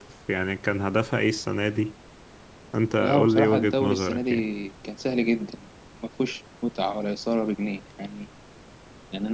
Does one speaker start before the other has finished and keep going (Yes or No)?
Yes